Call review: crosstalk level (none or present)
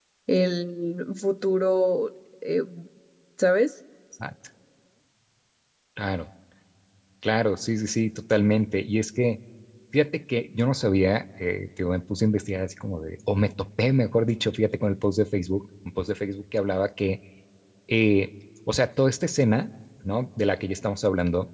none